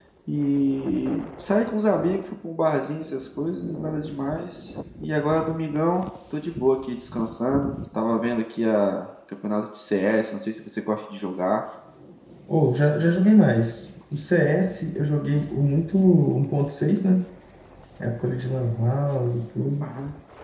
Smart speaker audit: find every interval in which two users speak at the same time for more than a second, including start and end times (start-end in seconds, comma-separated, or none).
none